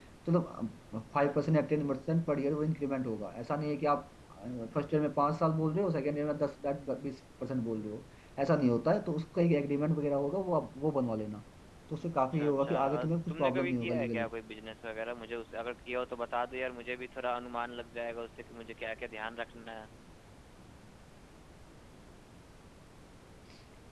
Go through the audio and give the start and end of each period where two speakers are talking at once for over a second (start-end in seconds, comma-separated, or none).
12.3-14.3